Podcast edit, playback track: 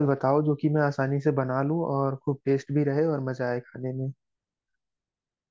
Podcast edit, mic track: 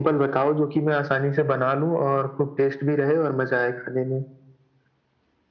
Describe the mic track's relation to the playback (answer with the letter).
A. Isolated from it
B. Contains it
B